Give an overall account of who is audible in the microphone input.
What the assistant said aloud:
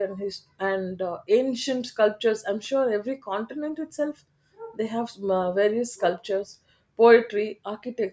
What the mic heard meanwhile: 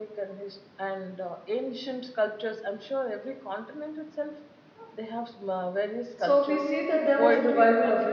both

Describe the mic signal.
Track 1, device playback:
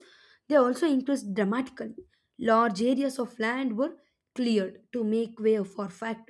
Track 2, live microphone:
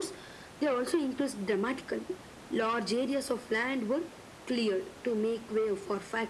echo only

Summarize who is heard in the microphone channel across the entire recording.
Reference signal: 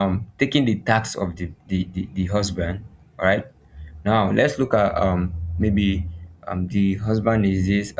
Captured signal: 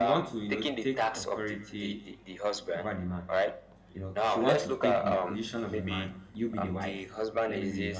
both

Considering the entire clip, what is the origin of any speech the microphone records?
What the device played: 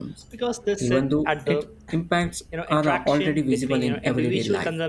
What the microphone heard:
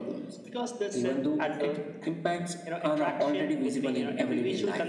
echo only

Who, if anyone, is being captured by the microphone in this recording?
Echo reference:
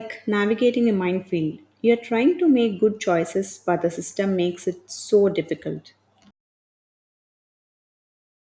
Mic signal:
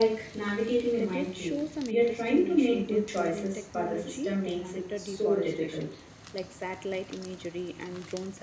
both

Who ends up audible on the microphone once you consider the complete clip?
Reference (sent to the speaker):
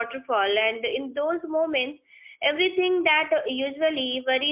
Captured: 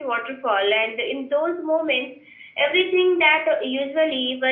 echo only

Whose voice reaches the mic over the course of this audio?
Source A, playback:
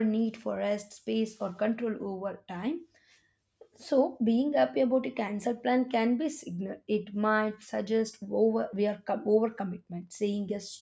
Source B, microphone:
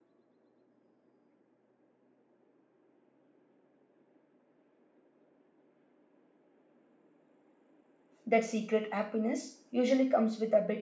user only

